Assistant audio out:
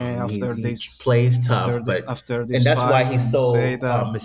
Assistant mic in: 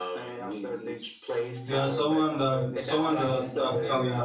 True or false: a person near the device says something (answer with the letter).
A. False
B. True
B